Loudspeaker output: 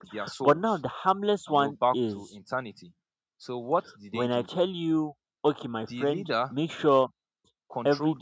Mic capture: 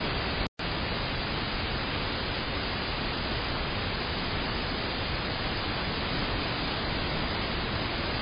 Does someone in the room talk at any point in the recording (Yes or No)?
No